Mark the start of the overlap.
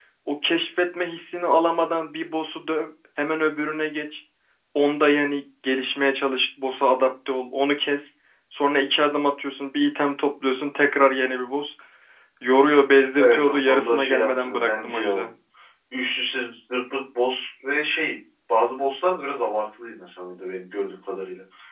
13.2 s

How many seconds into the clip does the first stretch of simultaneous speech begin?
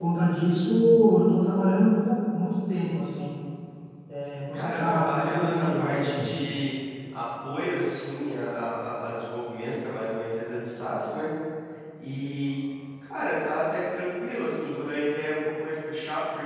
4.5 s

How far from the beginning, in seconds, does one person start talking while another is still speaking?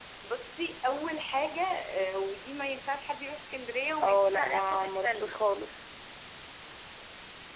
4.0 s

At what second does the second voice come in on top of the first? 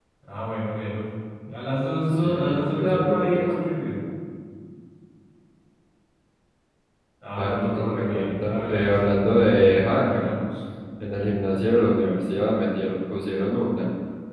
2.2 s

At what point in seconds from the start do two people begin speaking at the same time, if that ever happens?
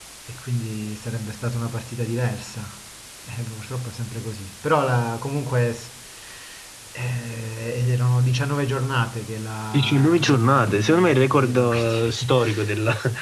9.7 s

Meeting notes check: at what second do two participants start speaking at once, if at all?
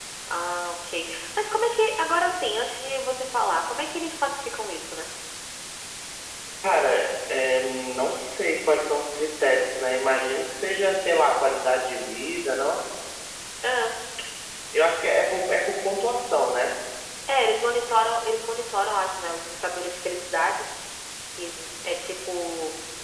none

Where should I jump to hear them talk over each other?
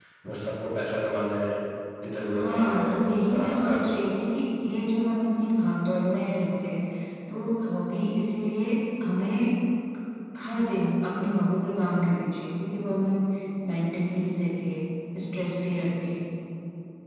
2.3 s

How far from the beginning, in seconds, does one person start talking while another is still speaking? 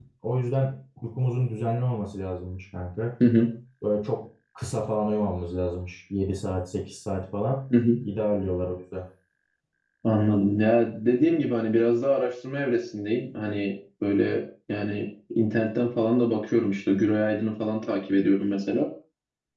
none

